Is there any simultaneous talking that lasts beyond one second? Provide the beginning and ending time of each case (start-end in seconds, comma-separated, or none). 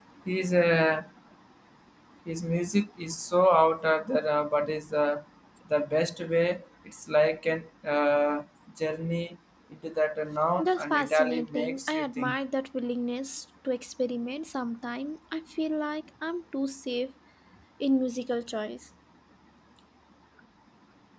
10.6-12.4